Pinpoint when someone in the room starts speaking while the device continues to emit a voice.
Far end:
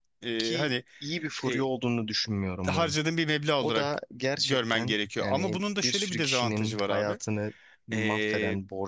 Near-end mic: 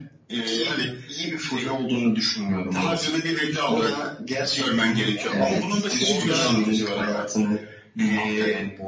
5.1 s

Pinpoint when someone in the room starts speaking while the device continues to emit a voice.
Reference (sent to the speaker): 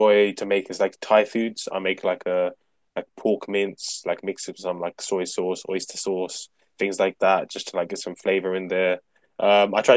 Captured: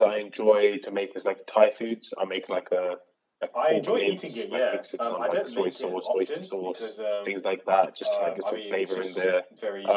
3.5 s

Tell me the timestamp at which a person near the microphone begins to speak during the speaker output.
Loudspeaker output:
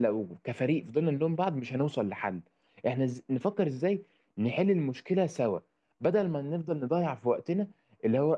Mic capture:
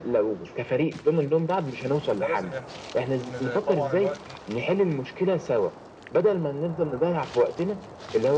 2.1 s

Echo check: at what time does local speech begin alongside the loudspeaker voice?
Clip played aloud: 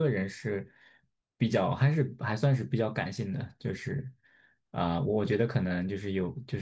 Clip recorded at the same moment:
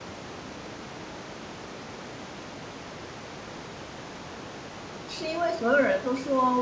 5.1 s

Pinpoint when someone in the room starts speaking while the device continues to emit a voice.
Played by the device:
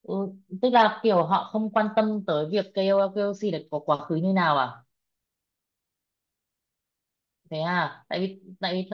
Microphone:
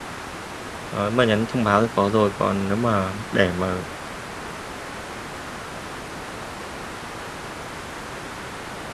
0.9 s

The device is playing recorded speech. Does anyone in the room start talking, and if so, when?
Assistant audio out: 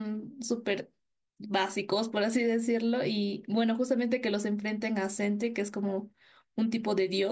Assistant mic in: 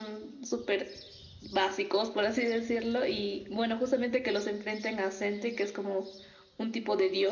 none

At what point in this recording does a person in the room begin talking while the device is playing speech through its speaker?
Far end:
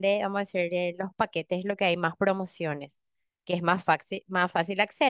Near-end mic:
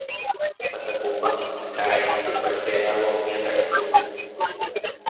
0.7 s

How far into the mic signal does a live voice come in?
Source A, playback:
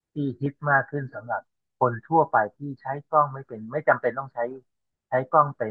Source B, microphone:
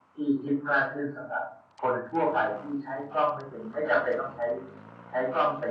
none

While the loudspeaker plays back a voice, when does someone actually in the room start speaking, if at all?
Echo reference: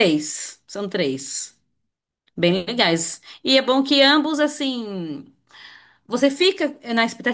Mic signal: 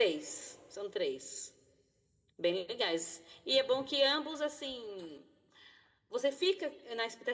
none

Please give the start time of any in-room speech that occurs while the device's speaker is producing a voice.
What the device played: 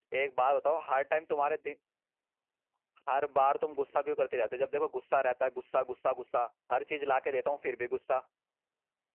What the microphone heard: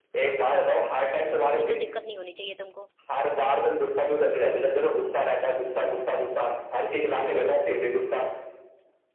1.6 s

